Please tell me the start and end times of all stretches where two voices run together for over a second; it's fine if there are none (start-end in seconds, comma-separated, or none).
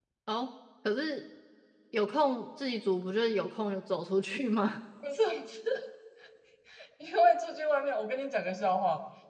none